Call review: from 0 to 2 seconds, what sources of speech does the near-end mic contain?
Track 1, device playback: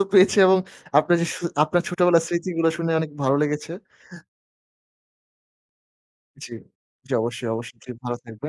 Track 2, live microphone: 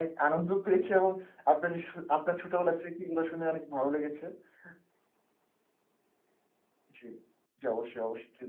echo only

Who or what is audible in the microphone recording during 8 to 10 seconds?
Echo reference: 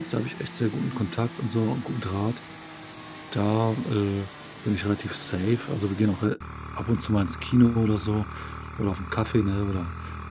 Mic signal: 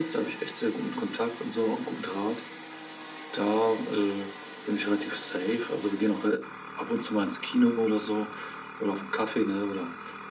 echo only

